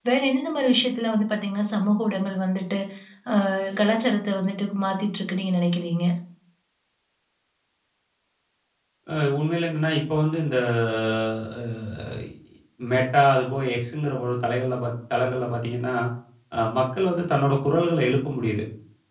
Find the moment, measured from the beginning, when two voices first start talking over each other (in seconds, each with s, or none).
none